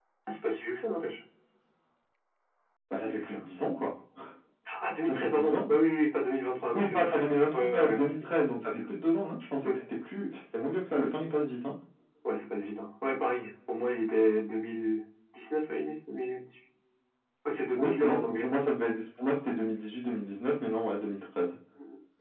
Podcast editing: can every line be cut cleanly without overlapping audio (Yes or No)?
No